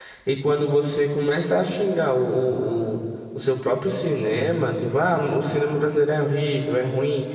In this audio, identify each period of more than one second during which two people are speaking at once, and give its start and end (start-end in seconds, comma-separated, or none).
none